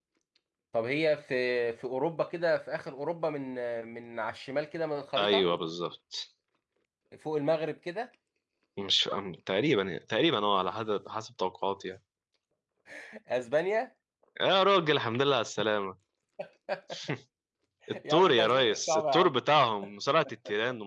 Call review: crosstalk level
present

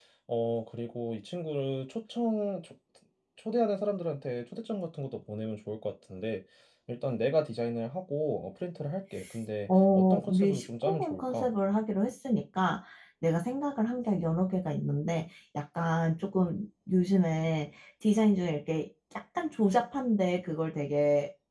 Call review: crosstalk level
present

